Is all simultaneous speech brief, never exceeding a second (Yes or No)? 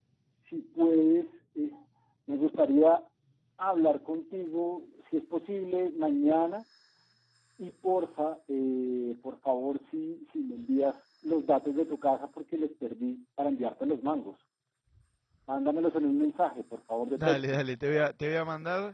Yes